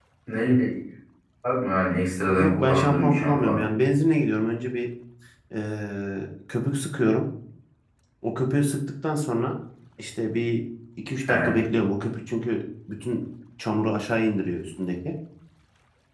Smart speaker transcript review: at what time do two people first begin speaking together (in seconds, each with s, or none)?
2.4 s